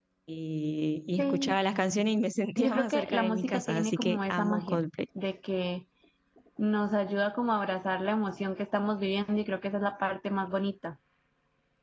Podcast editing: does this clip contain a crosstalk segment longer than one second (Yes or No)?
Yes